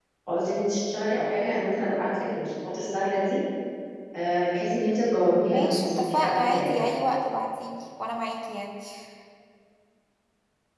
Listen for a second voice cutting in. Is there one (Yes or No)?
Yes